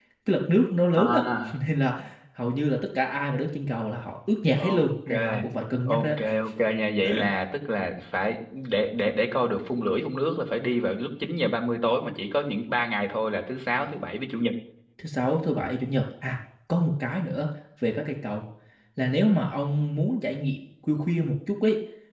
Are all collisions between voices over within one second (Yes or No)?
Yes